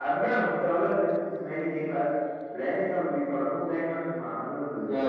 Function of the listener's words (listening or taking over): taking over